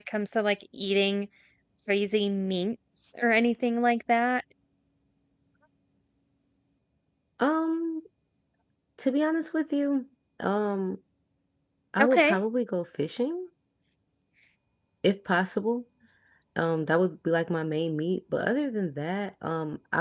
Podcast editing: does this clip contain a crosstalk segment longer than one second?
No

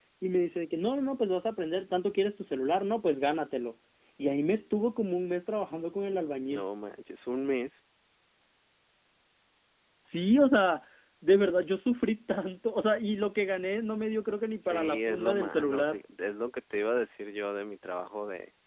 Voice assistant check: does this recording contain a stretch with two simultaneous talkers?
Yes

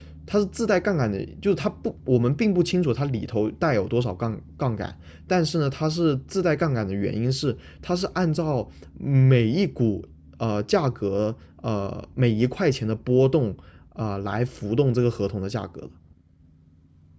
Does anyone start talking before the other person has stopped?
No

